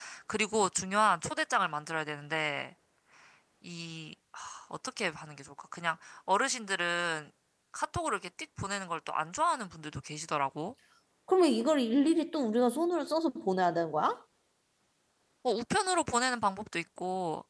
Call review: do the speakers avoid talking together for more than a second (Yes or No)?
Yes